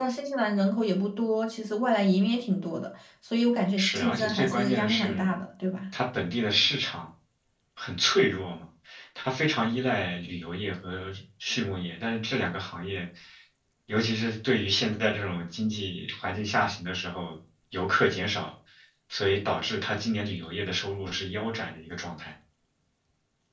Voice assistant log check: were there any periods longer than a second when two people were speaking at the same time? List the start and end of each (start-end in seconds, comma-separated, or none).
3.8-5.4